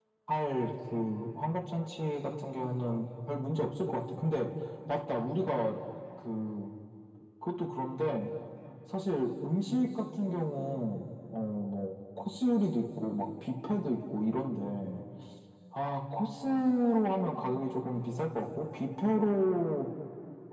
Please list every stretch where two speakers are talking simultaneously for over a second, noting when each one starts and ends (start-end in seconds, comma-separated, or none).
none